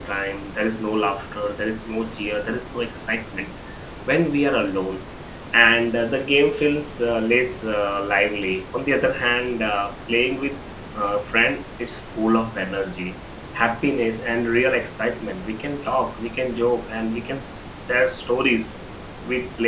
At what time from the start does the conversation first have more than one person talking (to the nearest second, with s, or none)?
none